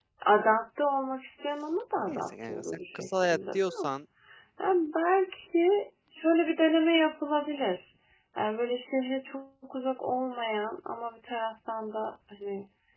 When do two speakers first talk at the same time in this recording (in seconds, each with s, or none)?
2.1 s